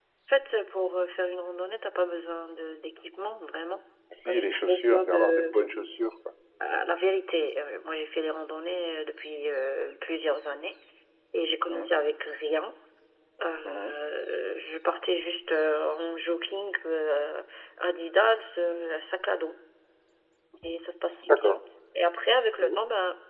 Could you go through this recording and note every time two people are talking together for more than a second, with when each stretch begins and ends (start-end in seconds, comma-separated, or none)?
4.3-5.5